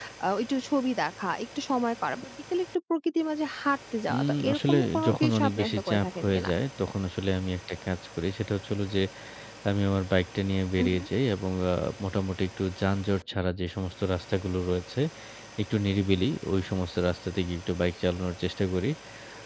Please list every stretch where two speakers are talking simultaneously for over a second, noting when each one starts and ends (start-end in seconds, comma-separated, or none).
4.1-6.5